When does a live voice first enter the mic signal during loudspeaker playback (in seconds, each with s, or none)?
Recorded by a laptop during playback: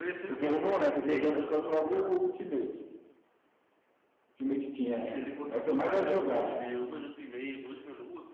none